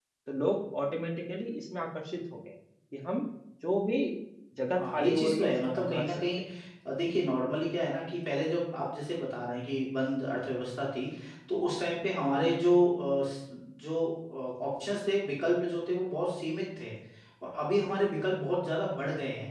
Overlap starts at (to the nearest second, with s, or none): 5 s